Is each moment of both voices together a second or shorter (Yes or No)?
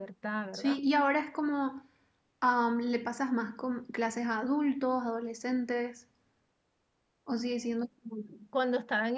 Yes